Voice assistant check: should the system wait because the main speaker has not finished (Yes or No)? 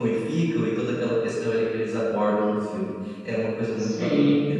No